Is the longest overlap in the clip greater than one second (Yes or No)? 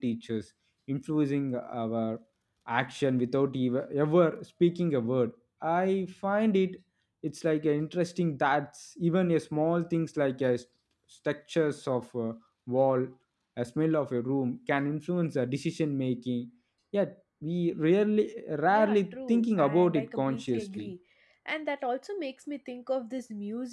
Yes